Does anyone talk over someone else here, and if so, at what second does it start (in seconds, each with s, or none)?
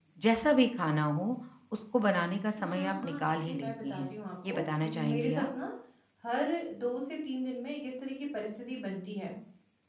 2.5 s